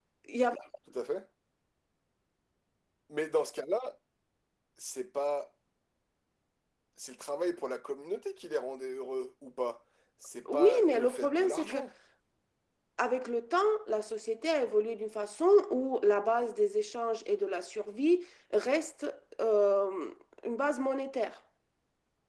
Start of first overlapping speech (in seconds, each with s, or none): 10.4 s